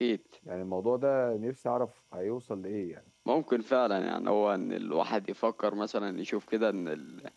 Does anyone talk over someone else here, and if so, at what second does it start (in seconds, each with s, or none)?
none